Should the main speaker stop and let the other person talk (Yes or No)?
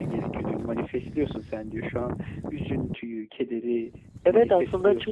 Yes